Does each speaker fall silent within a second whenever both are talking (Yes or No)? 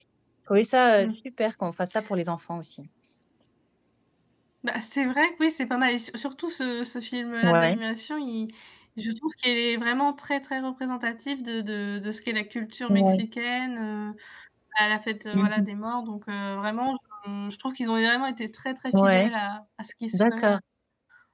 Yes